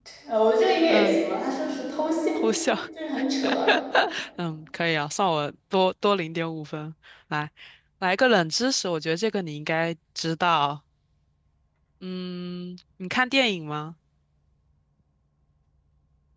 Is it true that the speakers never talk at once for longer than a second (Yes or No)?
Yes